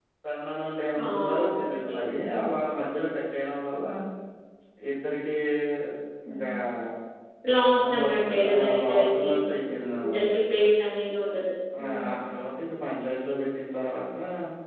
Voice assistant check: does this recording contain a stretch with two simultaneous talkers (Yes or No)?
Yes